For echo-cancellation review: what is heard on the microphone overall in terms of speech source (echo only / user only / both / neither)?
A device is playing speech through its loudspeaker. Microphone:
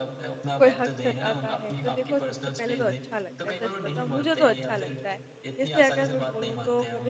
both